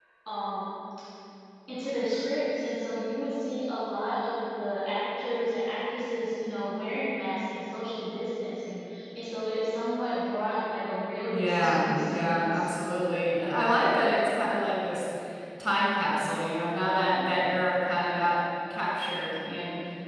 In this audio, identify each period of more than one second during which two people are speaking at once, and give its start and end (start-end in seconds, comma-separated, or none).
11.3-12.7